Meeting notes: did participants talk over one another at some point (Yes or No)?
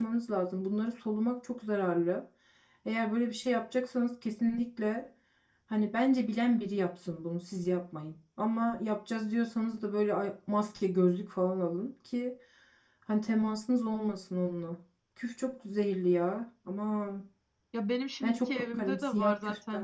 Yes